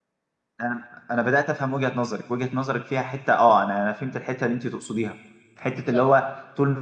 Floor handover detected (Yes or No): No